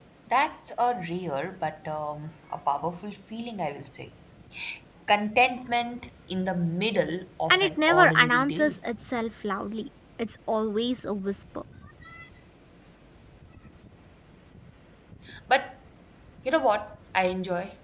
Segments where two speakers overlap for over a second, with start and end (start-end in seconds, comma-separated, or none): 7.5-8.7